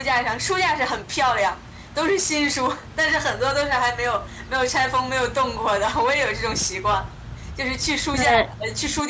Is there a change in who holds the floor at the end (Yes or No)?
No